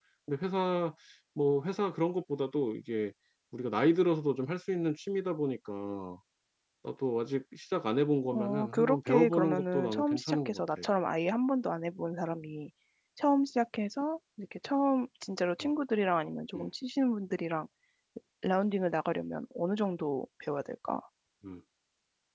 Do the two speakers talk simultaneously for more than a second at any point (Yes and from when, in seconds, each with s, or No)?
Yes, from 8.2 s